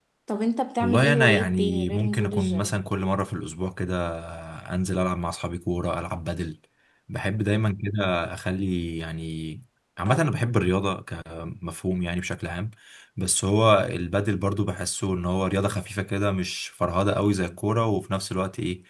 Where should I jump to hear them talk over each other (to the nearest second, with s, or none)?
1 s